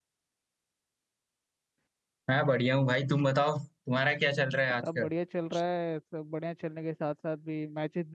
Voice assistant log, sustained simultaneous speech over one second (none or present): none